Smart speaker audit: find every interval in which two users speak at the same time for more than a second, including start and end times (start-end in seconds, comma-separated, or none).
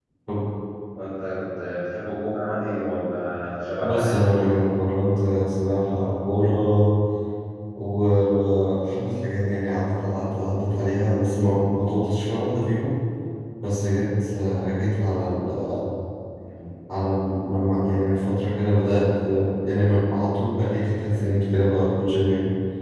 none